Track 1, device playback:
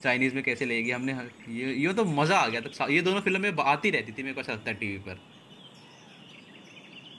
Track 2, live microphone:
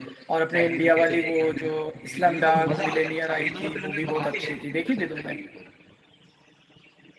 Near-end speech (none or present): present